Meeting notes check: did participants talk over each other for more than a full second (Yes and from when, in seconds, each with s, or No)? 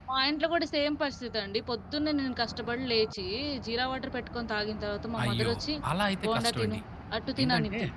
No